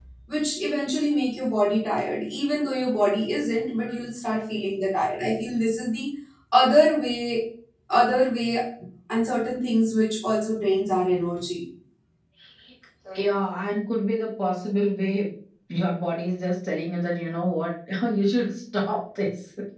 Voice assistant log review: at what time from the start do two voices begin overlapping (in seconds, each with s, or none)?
none